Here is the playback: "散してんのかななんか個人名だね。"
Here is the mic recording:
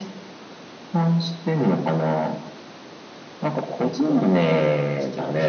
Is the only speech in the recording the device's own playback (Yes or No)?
No